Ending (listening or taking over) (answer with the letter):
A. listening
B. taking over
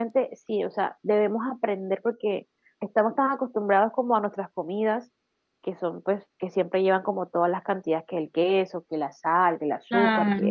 A